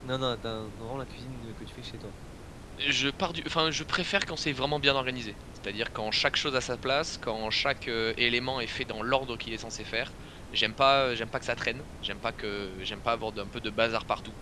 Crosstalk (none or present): none